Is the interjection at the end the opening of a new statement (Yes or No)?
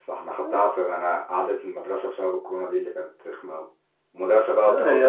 No